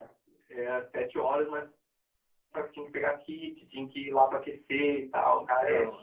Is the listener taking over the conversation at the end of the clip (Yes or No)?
Yes